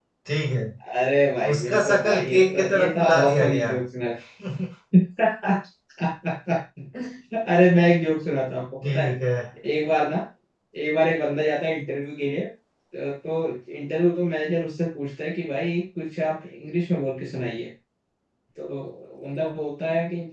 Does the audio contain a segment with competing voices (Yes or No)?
Yes